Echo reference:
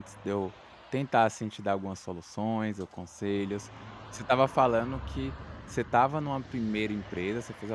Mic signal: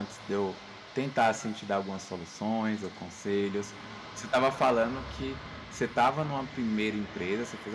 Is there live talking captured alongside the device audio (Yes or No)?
No